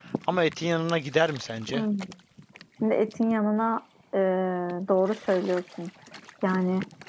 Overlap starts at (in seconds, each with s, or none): none